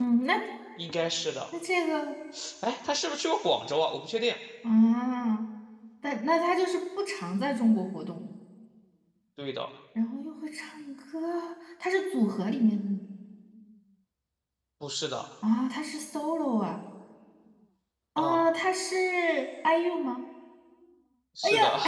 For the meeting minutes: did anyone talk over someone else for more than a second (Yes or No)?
No